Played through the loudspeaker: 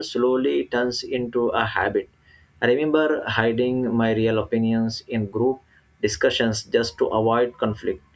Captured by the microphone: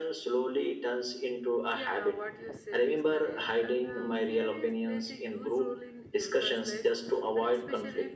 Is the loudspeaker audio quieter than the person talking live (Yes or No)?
No